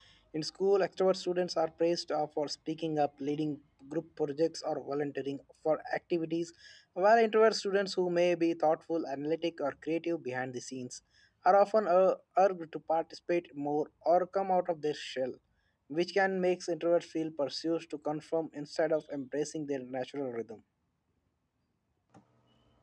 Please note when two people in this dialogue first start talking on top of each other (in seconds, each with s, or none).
none